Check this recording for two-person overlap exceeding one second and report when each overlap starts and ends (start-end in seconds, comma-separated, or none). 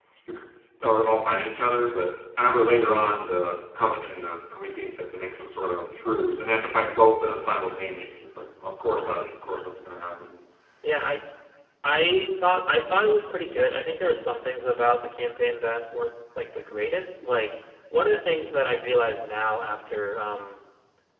none